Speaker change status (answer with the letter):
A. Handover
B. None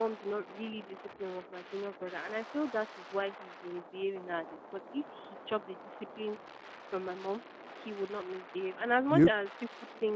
B